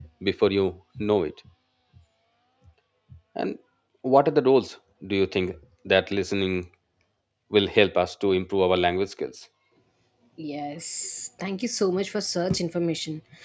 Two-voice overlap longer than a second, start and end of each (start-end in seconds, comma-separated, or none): none